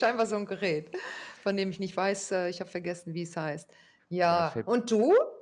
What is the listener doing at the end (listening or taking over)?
listening